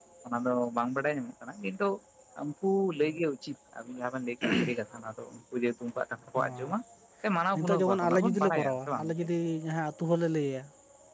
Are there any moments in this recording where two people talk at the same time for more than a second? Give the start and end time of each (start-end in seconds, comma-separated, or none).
7.6-9.1